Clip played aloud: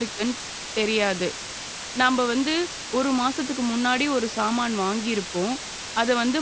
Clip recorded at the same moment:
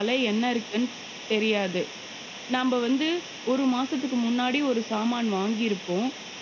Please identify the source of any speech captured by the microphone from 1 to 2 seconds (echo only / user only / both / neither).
echo only